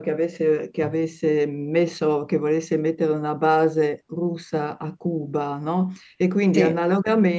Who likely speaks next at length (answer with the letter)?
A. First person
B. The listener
A